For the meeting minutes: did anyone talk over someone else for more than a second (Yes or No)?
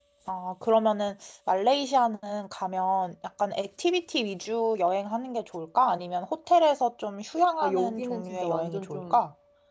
Yes